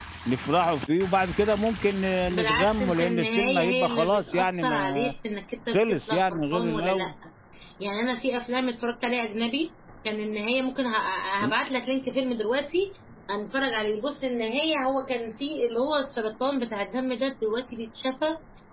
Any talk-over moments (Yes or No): Yes